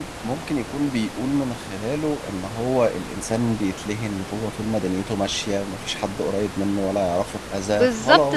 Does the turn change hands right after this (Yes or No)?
Yes